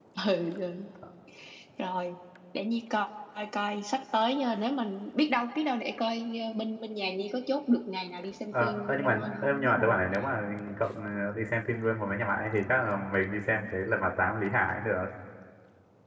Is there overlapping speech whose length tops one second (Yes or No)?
Yes